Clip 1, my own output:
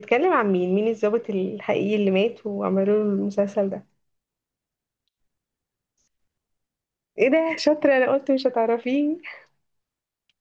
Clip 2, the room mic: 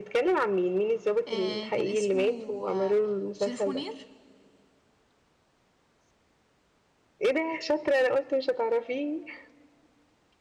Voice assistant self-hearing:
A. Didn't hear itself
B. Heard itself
B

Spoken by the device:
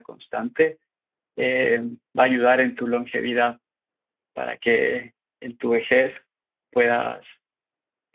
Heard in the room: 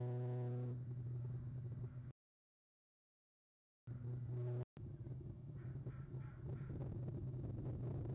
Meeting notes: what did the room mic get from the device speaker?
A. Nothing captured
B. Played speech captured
A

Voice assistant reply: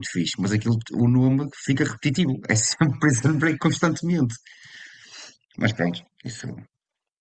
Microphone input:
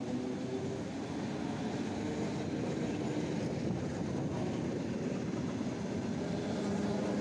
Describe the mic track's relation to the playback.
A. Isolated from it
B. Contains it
A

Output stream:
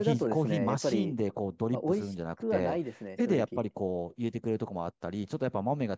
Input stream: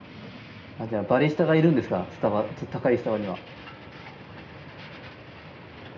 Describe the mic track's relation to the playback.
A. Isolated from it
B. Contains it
A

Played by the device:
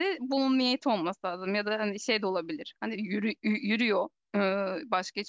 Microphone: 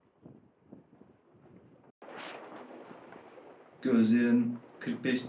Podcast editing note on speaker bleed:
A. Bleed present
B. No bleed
B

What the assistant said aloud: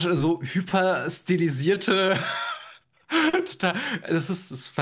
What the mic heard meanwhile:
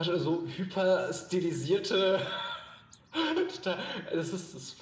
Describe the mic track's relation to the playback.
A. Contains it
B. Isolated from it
A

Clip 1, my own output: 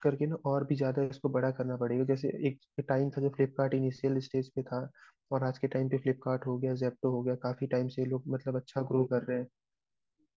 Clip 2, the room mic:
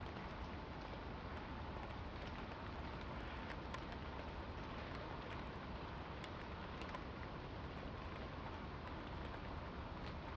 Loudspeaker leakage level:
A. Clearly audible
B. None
B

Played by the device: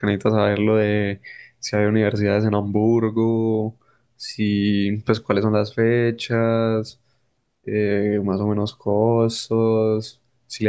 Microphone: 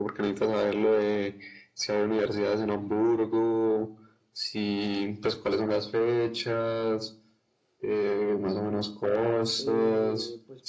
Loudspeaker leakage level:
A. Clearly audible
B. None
A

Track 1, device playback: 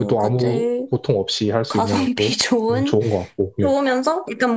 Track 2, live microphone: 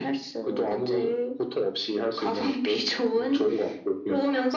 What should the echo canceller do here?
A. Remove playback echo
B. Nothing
A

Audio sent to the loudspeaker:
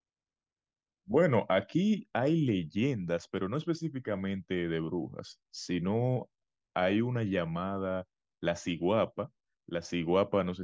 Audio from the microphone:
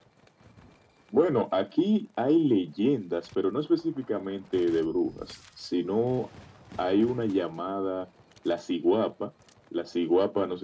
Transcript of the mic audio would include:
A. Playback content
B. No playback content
A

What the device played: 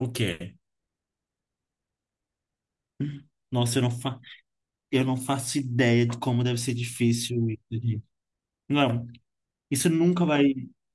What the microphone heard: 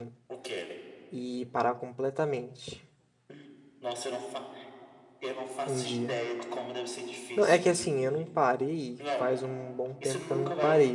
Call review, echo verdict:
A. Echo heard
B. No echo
A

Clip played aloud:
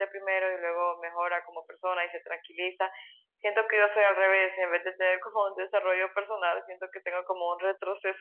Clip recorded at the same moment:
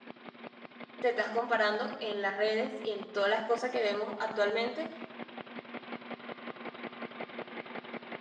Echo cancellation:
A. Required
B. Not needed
B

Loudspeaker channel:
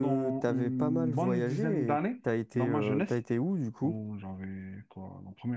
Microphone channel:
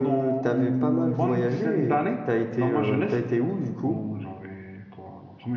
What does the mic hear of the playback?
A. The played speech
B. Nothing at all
A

